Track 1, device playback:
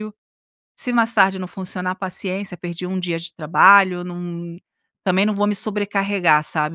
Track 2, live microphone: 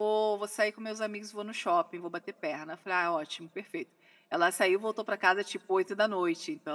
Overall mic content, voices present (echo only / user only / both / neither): user only